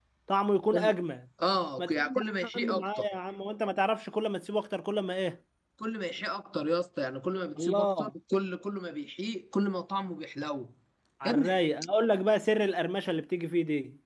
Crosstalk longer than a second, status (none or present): present